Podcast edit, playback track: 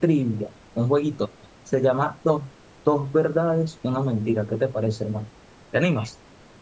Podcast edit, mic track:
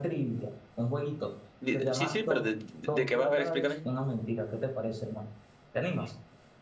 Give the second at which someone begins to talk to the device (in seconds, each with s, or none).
1.6 s